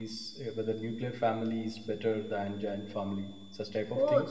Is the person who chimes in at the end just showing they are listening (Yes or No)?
No